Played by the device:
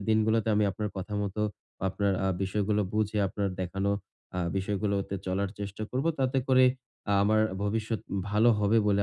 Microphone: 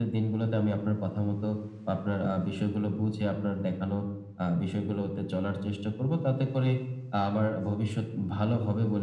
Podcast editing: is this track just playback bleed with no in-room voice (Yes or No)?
Yes